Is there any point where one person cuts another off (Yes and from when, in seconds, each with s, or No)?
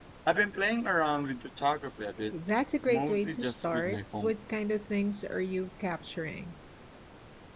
Yes, from 2.9 s